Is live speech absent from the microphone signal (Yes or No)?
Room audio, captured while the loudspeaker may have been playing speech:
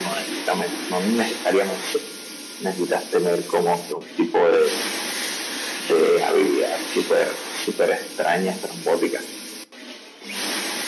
Yes